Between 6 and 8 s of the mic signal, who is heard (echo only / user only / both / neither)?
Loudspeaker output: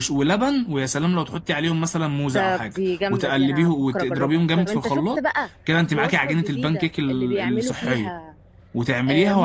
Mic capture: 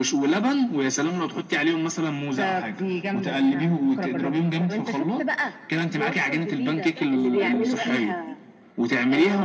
both